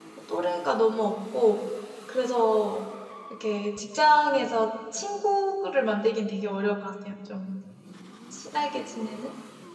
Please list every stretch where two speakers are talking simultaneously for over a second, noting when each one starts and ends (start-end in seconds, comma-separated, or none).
none